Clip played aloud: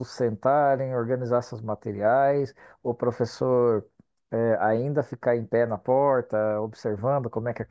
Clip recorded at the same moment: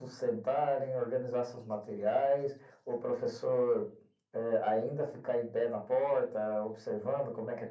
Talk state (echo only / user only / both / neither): echo only